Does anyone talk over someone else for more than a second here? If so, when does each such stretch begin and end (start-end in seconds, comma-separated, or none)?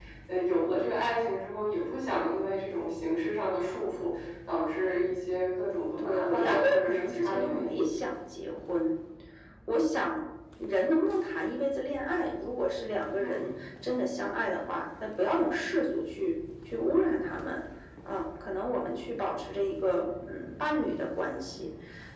6.0-7.8